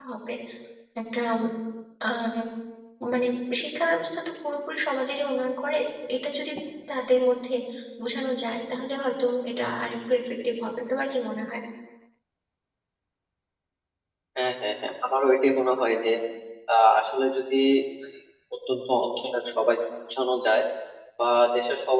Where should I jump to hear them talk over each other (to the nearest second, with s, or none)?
none